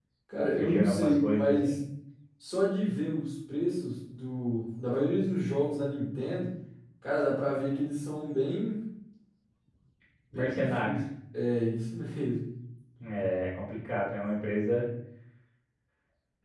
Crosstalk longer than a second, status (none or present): present